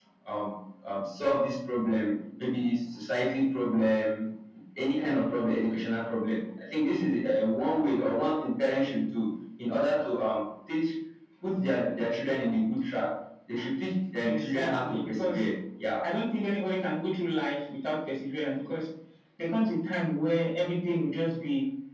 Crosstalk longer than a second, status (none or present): present